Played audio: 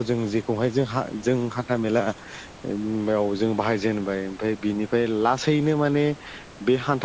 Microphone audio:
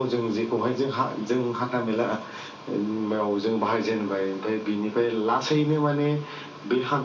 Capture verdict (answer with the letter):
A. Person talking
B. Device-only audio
B